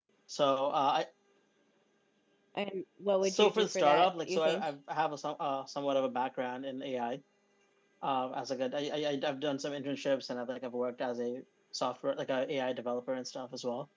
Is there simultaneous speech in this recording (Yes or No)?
Yes